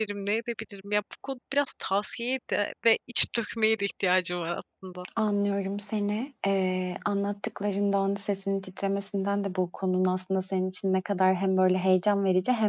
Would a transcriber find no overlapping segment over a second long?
Yes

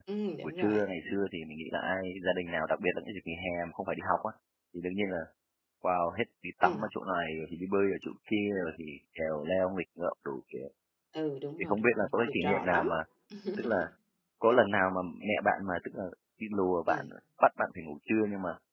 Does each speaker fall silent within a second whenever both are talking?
No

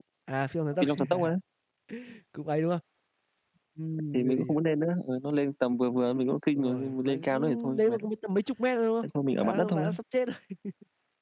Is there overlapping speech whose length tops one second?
Yes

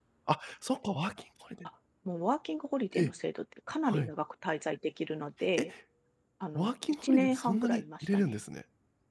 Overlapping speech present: Yes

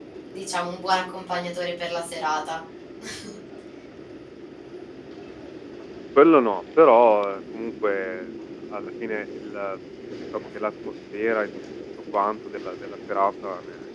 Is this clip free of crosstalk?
Yes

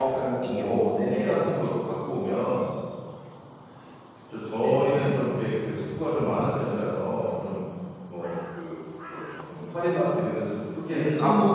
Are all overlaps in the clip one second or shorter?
No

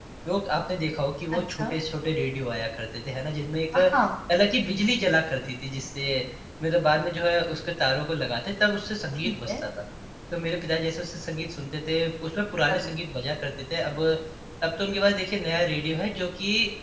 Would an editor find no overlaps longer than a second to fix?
Yes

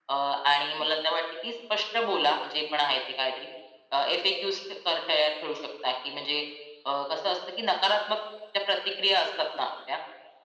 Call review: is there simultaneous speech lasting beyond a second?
No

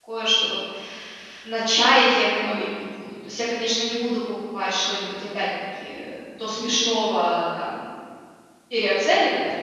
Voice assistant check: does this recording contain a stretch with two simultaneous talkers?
No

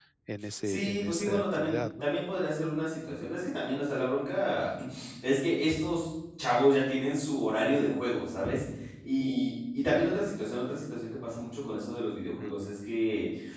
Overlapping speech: Yes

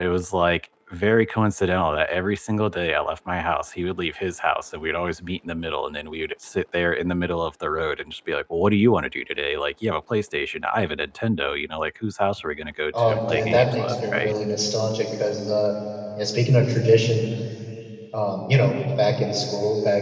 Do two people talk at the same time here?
Yes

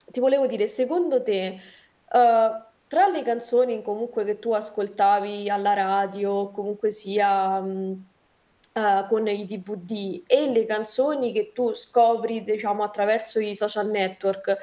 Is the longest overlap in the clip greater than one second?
No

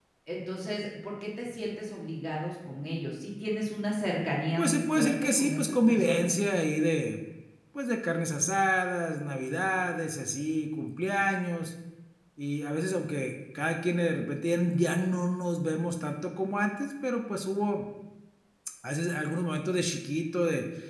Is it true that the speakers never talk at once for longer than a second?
No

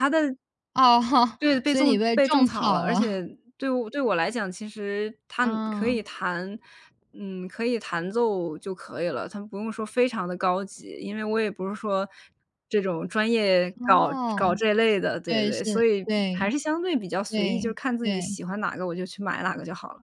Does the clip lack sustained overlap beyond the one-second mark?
No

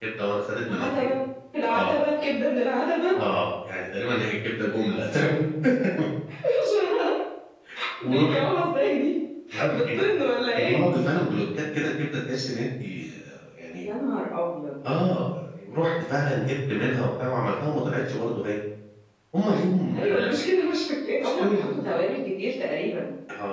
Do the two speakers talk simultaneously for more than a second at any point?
No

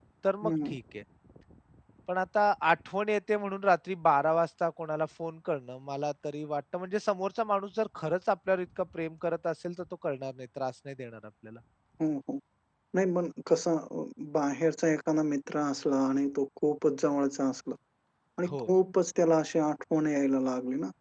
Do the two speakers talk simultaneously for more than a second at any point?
No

